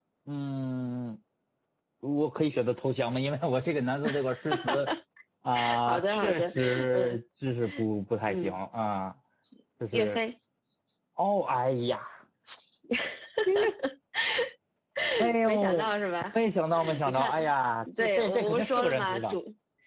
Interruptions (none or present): present